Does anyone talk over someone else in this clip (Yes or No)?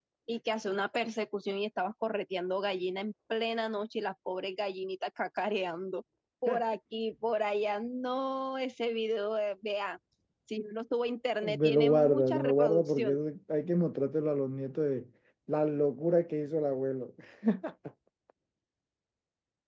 Yes